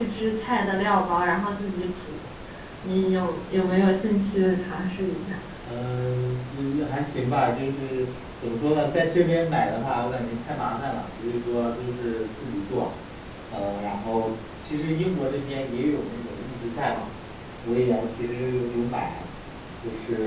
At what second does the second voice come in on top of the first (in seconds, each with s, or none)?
none